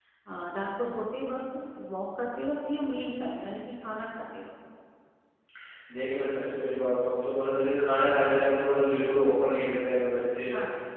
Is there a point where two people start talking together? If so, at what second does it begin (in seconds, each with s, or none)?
none